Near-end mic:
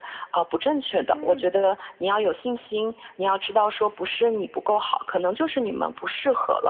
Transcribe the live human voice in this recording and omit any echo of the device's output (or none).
嗯，